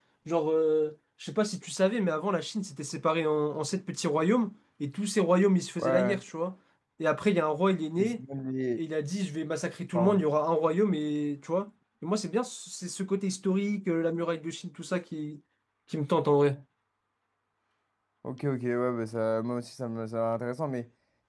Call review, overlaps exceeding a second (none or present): none